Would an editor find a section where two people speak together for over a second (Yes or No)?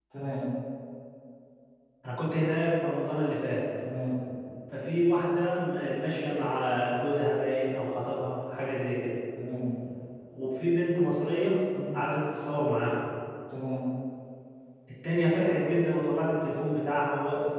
No